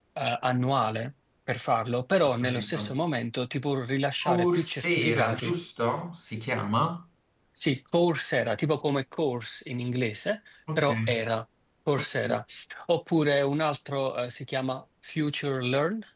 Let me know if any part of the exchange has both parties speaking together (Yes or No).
Yes